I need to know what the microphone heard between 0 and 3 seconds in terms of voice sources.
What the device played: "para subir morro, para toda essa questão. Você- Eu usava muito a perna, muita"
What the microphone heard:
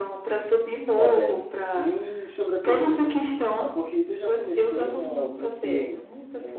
both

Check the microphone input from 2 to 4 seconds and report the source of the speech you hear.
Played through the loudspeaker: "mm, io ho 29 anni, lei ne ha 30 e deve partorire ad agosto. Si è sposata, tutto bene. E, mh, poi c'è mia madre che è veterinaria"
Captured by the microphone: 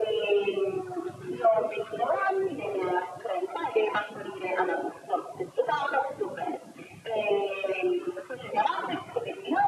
echo only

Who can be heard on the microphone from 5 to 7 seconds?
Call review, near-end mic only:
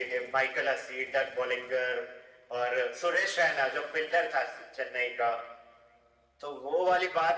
echo only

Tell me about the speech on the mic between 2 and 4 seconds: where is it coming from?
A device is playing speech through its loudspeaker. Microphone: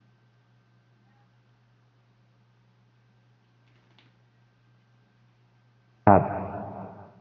neither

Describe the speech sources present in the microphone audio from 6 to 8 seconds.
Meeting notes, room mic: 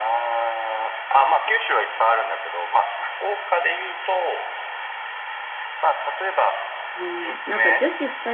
both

